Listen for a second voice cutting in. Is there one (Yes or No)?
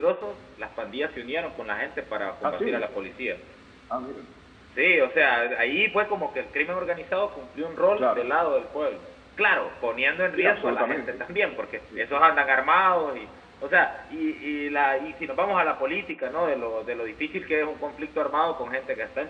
Yes